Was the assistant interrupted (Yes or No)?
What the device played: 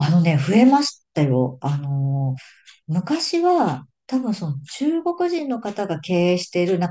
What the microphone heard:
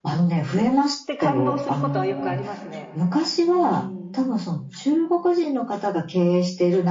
Yes